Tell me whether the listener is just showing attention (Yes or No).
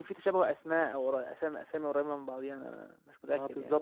No